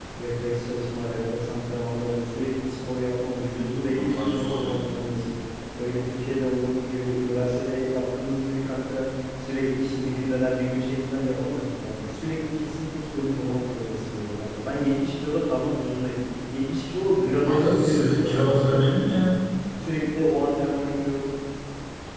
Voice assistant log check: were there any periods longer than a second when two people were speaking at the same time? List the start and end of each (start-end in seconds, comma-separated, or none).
3.9-5.1, 17.4-19.4